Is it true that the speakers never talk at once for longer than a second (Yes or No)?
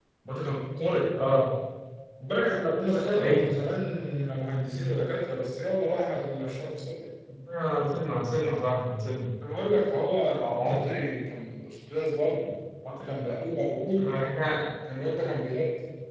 Yes